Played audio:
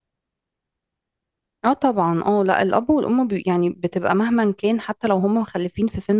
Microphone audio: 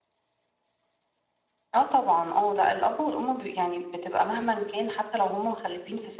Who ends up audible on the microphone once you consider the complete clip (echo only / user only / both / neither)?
echo only